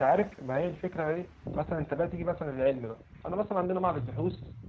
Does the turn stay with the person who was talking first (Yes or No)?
Yes